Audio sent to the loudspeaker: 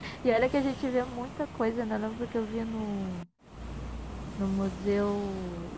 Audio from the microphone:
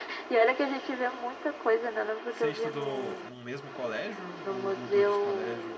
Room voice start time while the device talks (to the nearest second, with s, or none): 2 s